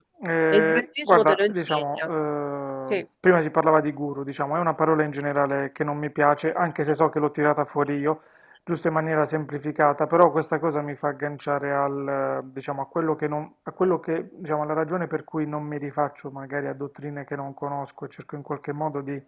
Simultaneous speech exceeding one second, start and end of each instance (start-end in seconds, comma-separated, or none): 0.5-2.1